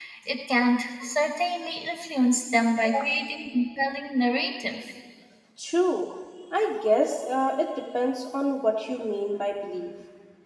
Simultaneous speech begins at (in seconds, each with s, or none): none